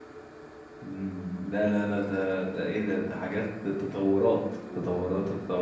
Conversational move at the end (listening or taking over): taking over